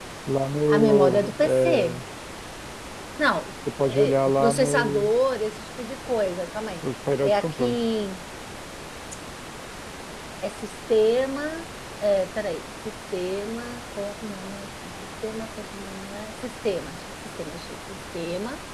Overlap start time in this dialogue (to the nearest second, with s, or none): 1 s